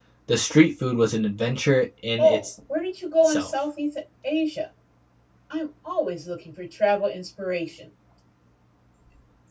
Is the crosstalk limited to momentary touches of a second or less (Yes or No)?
Yes